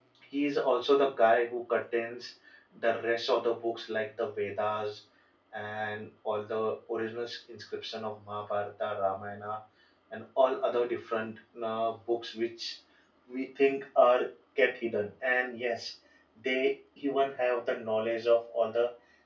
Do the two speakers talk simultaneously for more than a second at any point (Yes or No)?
No